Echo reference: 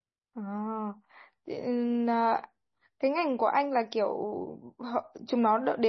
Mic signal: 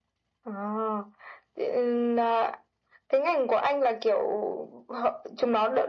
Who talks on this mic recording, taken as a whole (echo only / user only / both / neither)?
echo only